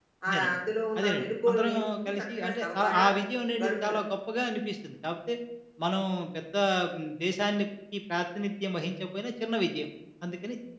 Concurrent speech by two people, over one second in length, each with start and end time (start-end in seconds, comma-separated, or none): 1.0-3.1